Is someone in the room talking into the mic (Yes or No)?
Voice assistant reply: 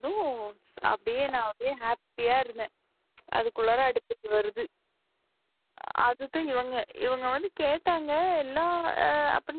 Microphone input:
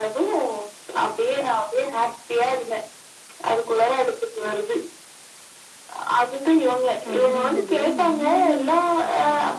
Yes